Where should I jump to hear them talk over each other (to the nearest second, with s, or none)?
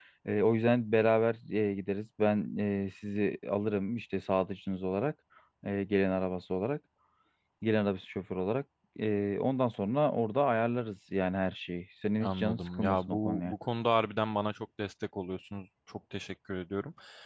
12 s